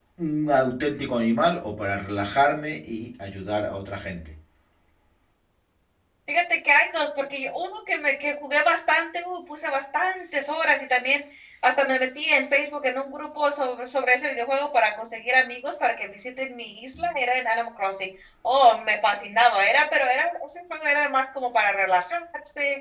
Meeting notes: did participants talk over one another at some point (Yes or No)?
No